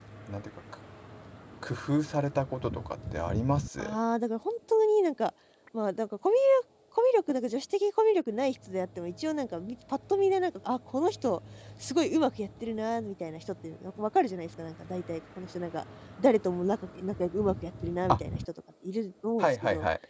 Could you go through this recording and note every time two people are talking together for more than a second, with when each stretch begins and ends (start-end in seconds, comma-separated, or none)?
none